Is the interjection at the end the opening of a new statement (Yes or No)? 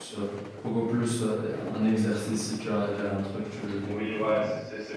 Yes